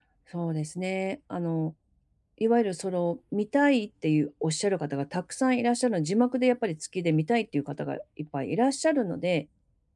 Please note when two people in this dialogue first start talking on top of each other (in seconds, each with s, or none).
none